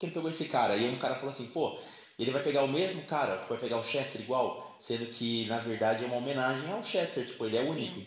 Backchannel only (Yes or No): Yes